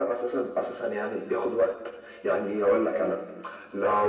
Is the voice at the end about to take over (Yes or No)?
No